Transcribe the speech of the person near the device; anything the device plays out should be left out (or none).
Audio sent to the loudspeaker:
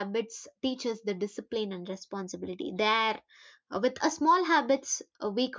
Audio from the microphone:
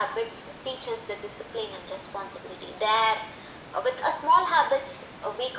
none